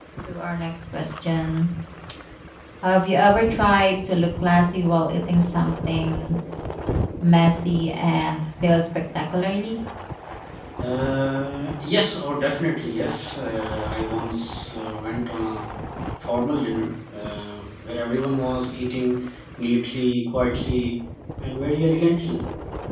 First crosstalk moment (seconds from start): none

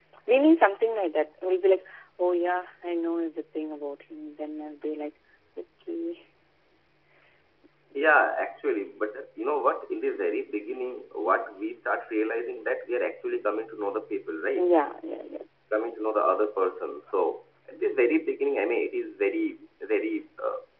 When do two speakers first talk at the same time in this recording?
none

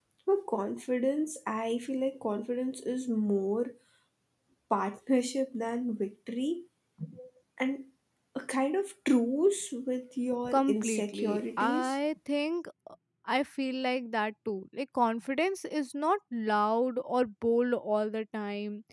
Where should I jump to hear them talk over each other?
10.4 s

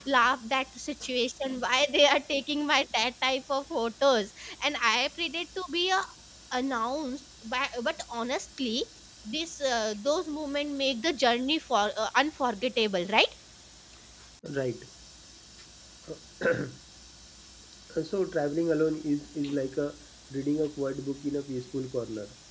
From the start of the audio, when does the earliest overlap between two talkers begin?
none

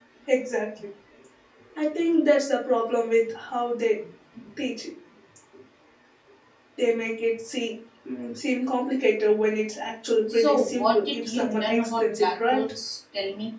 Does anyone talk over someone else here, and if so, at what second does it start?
10.3 s

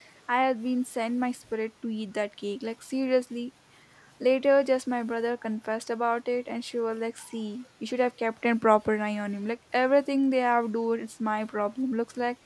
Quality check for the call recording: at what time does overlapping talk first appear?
none

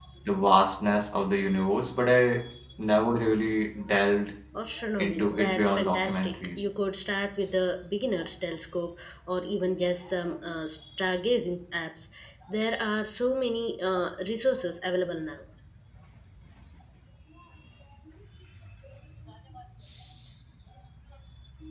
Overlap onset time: 5.0 s

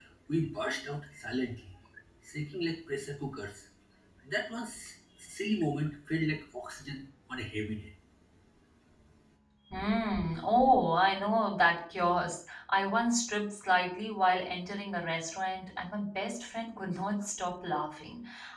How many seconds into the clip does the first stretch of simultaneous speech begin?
none

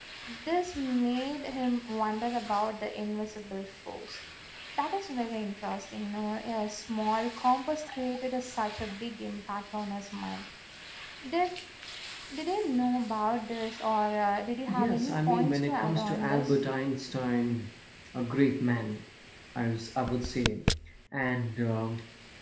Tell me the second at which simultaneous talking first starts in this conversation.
14.7 s

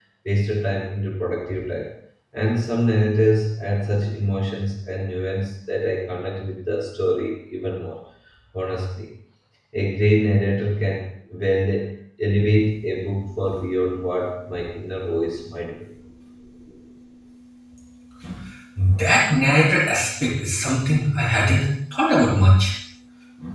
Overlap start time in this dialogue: none

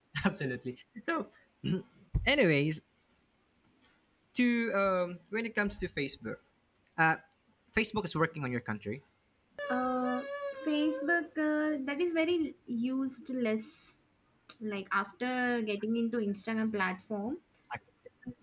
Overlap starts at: none

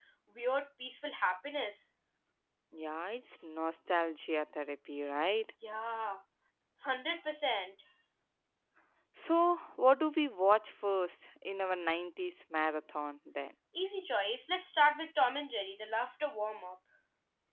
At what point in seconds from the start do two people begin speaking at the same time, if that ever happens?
none

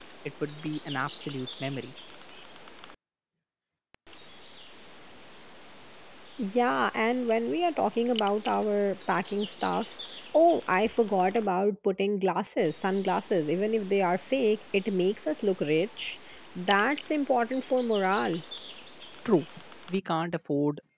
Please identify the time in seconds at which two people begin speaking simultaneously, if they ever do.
none

